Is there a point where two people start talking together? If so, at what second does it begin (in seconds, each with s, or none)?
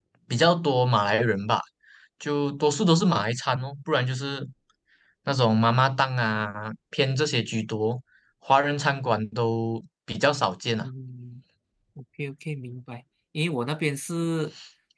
none